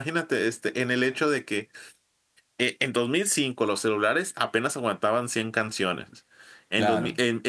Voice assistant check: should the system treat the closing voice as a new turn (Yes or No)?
No